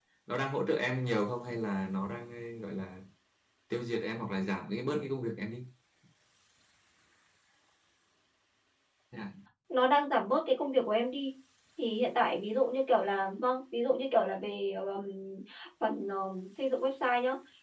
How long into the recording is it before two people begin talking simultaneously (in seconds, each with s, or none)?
none